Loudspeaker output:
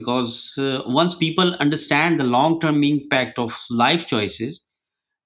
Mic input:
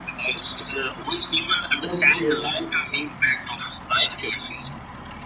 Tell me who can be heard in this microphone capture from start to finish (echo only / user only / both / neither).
both